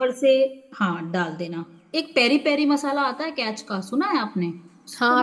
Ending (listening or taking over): taking over